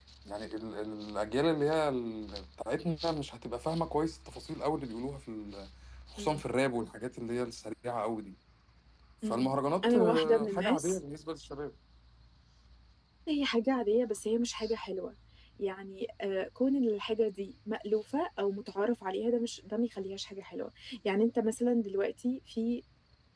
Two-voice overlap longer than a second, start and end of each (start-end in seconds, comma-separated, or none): 9.2-11.0